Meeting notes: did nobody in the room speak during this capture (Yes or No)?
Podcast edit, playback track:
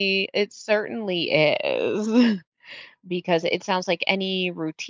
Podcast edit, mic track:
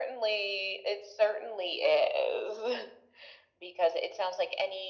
Yes